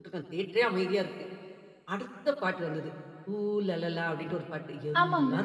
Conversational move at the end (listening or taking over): listening